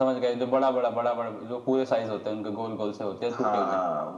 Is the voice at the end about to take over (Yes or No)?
Yes